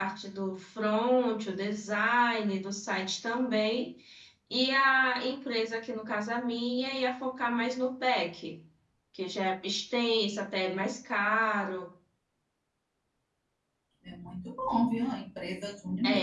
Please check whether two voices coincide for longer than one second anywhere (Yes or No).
No